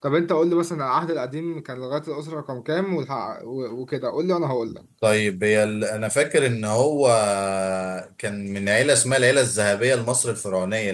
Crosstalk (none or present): none